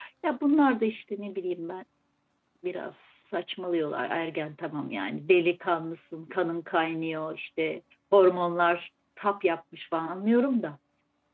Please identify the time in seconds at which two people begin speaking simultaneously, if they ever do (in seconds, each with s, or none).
none